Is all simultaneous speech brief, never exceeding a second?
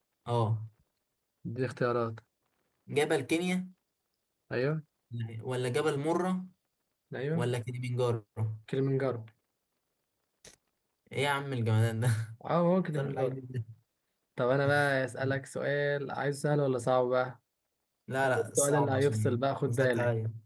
No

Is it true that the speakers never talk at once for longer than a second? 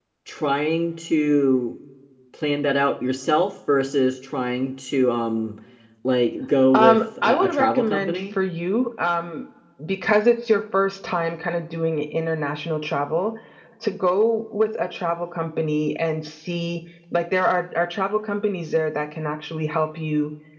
No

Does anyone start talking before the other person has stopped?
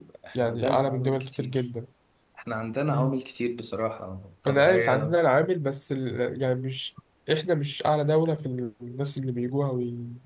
Yes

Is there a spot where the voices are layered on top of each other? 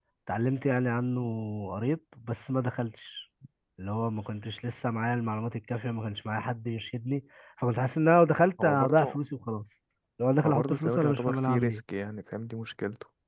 Yes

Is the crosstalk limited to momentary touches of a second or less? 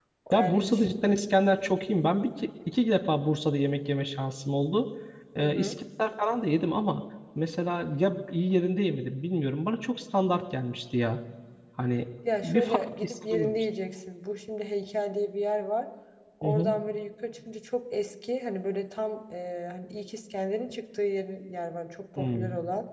No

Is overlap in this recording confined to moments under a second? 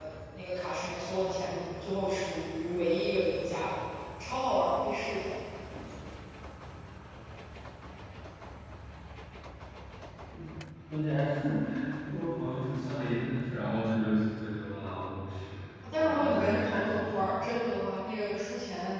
No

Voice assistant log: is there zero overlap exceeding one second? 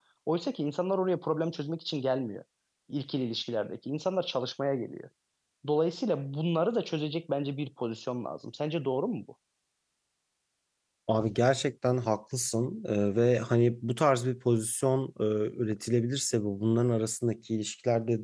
Yes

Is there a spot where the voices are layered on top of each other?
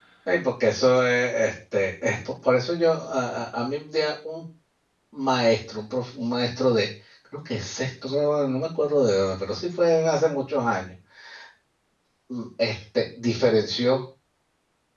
No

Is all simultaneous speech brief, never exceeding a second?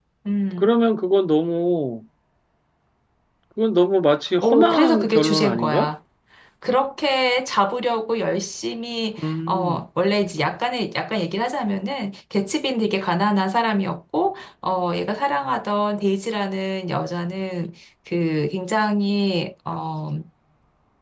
No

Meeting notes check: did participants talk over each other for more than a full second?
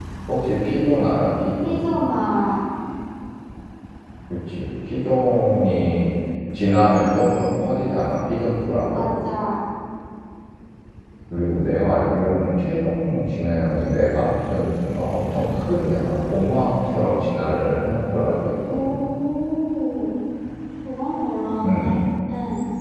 No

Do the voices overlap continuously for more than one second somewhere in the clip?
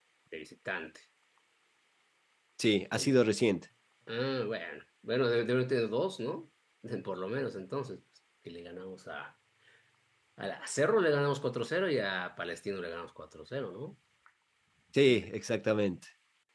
No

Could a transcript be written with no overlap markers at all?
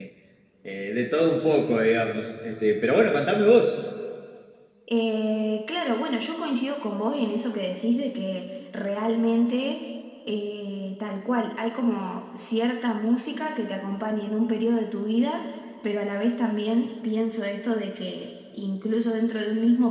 Yes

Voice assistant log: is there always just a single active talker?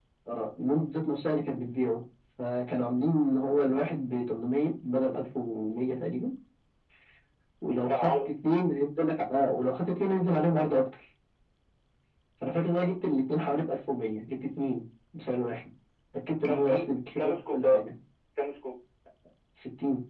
No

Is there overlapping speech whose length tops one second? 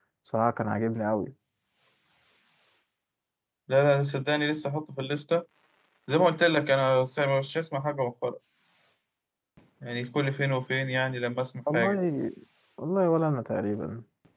No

